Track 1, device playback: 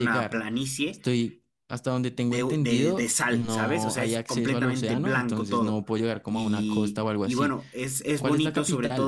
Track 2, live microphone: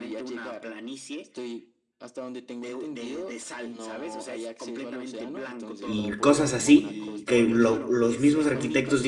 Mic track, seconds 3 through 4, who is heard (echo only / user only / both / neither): echo only